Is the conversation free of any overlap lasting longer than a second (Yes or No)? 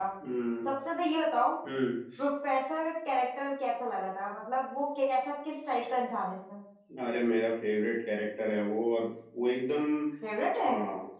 Yes